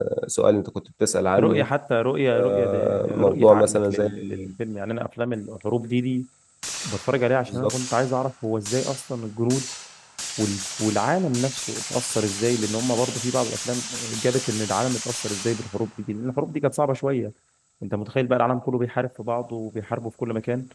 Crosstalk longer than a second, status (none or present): present